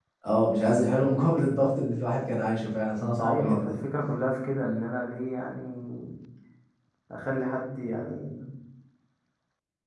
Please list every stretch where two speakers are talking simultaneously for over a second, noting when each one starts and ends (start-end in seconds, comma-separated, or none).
none